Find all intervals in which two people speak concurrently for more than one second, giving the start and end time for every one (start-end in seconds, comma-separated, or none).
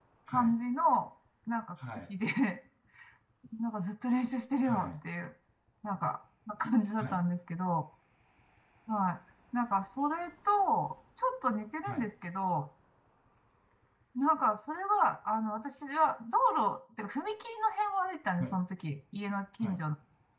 none